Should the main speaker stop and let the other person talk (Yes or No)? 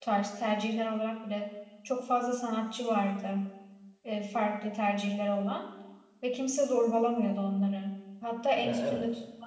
No